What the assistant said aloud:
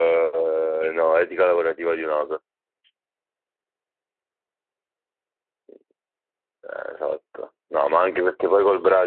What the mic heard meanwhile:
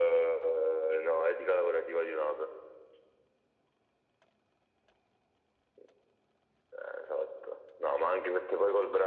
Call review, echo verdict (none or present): present